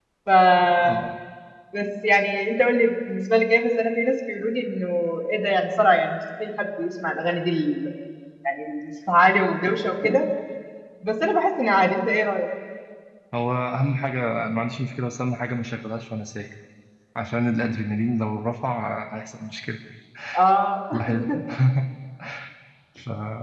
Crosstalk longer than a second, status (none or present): none